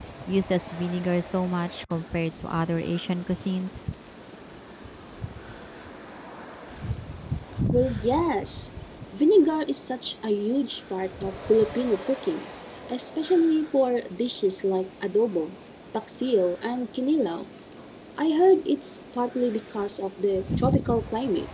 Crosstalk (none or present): none